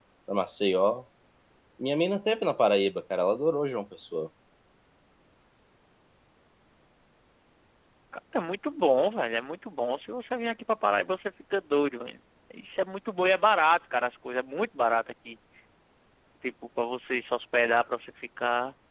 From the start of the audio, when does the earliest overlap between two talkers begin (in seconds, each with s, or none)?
none